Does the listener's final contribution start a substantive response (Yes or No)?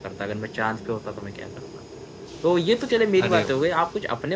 No